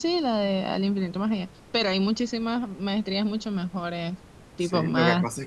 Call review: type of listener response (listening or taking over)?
taking over